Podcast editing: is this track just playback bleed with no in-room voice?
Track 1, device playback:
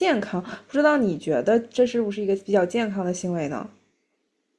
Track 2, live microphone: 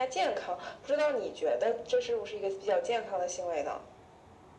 Yes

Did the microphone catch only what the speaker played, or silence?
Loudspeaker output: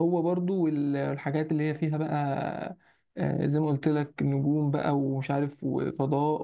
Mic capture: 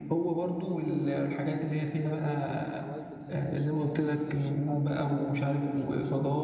No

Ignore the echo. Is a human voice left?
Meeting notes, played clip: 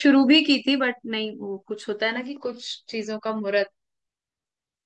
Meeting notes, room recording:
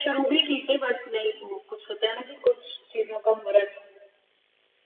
No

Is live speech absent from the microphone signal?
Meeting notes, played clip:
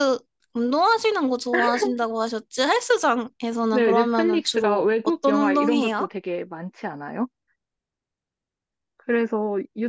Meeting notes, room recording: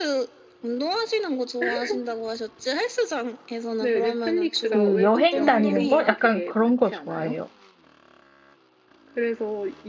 No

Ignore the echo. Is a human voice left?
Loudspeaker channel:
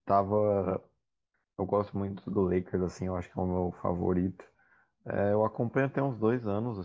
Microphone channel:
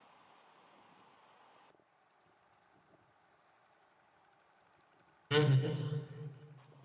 Yes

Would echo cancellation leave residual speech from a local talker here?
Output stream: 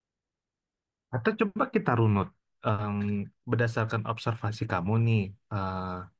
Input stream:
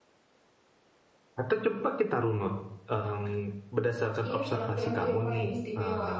Yes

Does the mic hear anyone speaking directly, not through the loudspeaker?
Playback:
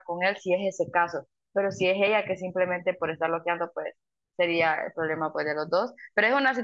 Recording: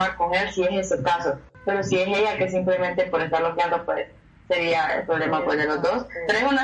Yes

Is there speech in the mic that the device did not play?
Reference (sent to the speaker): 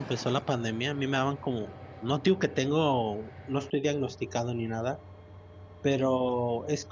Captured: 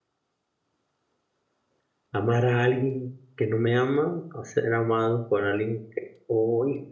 Yes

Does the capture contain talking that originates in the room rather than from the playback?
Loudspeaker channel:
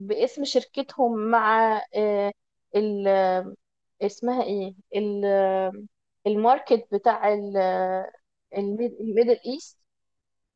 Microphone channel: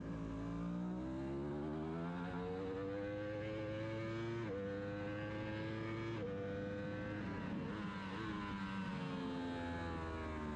No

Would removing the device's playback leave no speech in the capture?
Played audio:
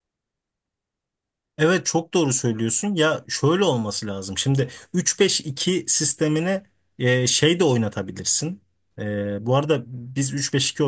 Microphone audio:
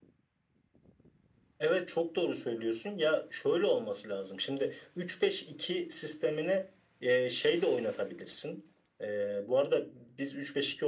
Yes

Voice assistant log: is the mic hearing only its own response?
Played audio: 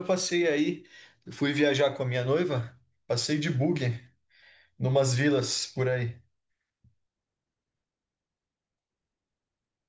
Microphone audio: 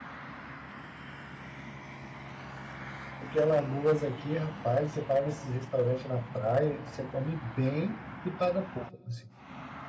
No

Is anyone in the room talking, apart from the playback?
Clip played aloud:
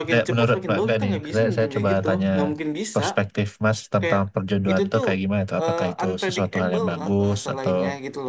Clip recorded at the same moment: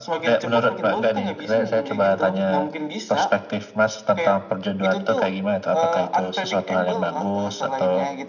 No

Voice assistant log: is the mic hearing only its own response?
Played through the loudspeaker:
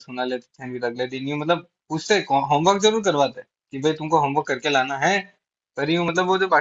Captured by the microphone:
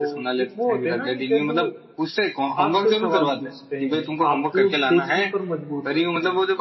No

